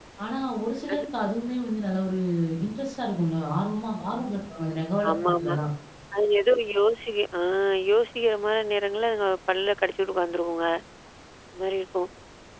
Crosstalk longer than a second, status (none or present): none